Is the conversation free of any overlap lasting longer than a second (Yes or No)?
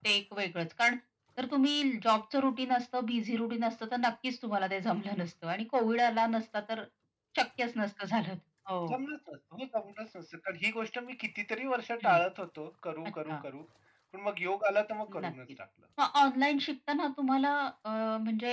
Yes